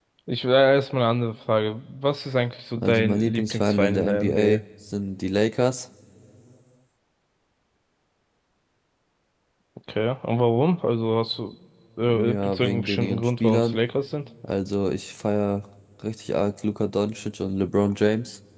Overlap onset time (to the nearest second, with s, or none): 3 s